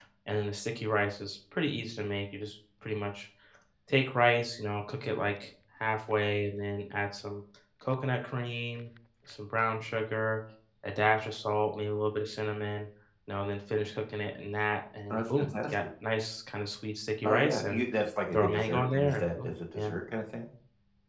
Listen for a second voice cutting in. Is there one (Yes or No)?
Yes